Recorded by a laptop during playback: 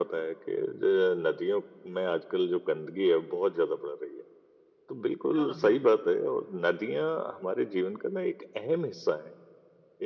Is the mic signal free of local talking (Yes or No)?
No